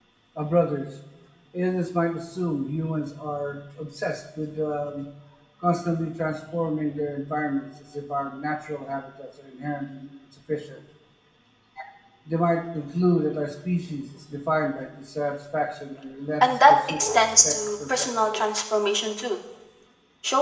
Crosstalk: present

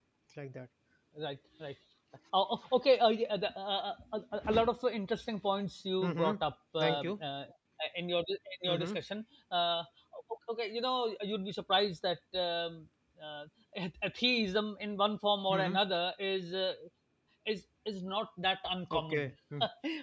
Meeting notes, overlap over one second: none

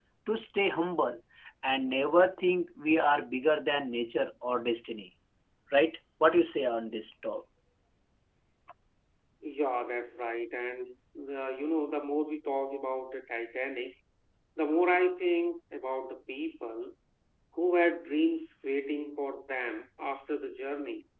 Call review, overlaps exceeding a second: none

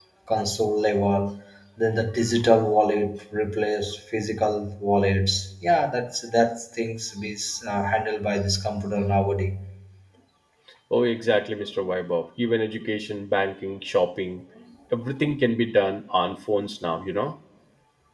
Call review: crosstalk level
none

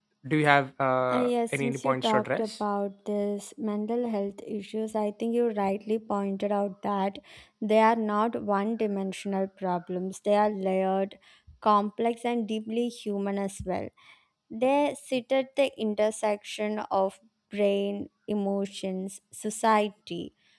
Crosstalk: present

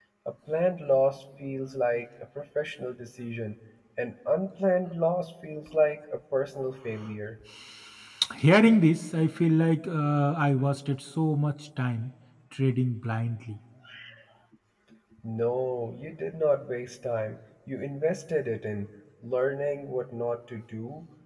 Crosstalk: none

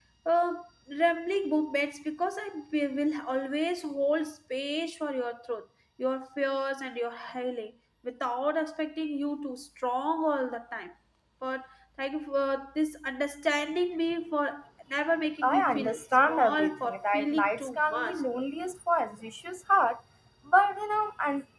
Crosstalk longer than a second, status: present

